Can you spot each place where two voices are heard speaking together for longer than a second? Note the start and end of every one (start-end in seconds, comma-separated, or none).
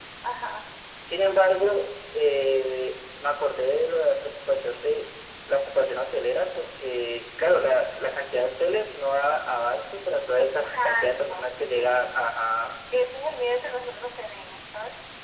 10.3-12.0